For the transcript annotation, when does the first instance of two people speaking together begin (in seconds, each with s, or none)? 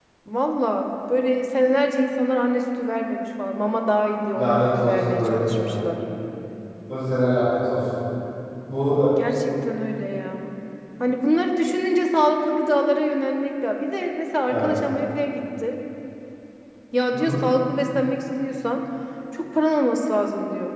4.3 s